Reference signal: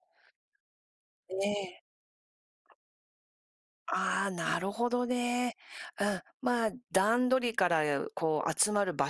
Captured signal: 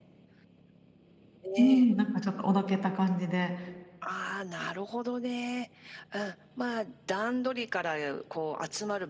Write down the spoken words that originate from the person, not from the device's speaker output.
うん、なんかちょっと、おどけた感じで

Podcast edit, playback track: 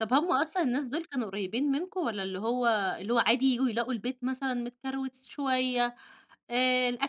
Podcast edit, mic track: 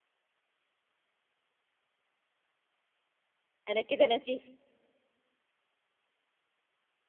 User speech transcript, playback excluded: أنا كده انا شيف.

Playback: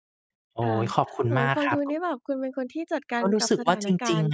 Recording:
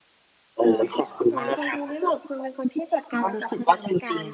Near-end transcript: none

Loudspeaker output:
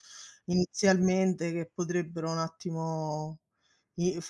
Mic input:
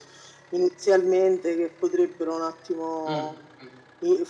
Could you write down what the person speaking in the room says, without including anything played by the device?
Mh, mh.

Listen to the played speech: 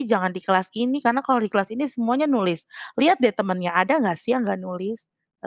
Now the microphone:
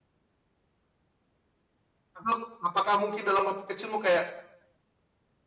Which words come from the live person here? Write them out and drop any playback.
apa apakah mungkin dalam hati kecilmu kayak,

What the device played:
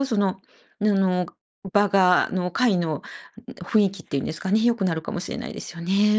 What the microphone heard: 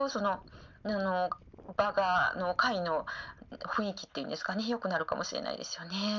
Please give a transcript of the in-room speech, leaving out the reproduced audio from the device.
none

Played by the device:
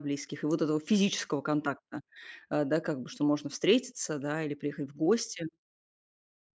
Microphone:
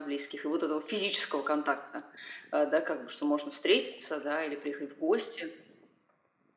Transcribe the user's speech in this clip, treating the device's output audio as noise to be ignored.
none

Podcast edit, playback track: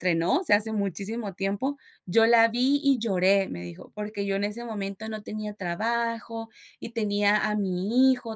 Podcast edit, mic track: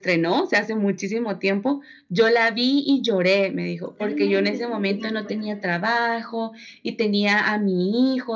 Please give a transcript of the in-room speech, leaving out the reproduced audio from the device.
Totalmente. Estoy de acuerdo.

